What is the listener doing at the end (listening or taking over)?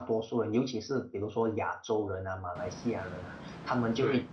listening